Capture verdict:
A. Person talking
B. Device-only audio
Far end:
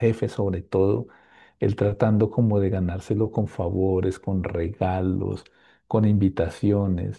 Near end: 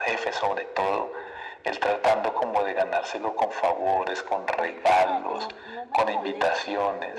A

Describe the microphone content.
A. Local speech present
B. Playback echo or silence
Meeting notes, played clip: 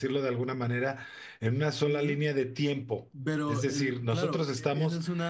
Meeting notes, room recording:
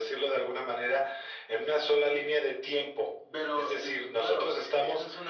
B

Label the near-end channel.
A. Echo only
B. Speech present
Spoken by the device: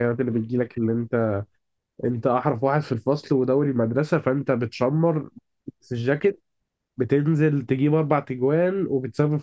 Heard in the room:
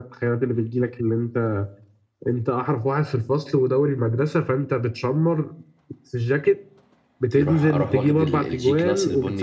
B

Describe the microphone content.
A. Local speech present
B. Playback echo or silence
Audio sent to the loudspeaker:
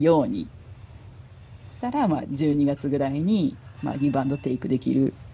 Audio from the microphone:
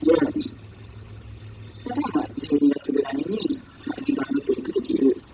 B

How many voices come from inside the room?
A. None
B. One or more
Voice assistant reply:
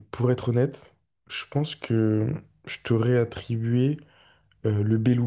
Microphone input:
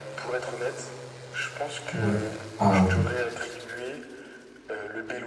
B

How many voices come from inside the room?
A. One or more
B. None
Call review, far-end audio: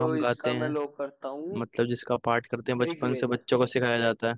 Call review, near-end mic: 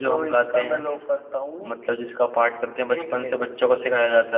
B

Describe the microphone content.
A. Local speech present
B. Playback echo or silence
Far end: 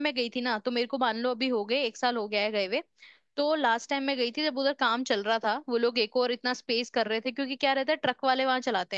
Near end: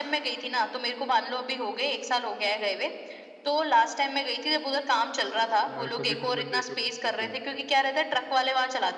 A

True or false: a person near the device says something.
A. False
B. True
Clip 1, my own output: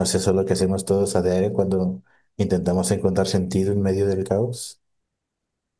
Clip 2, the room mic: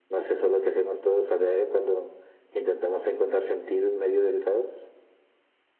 A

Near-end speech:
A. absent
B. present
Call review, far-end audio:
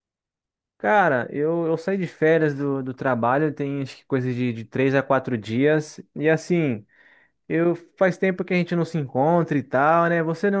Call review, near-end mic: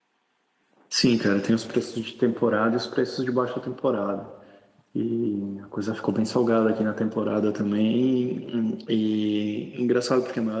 B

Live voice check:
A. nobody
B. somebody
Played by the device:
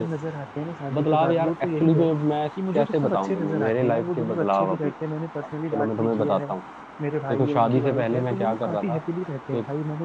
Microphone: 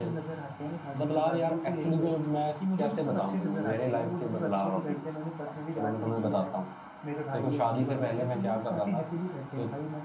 A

